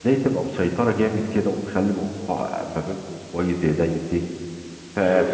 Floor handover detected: No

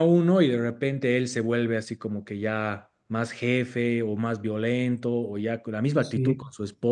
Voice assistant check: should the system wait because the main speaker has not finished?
Yes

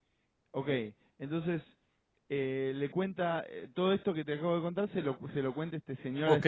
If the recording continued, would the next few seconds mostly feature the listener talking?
Yes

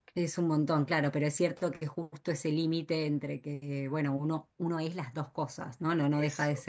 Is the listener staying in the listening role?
Yes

